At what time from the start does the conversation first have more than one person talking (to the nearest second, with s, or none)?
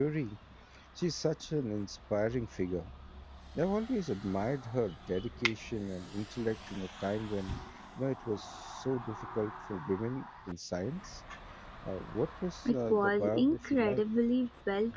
13 s